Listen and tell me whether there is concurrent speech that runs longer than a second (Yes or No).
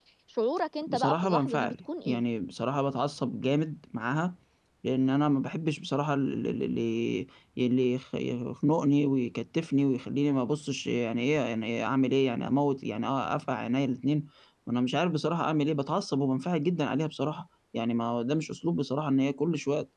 Yes